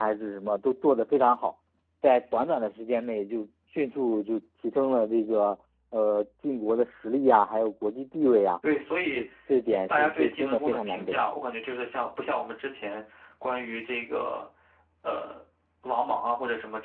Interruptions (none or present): present